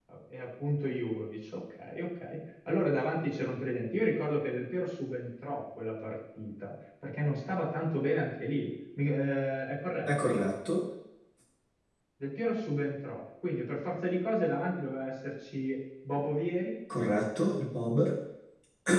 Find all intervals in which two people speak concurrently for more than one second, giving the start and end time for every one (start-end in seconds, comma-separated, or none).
none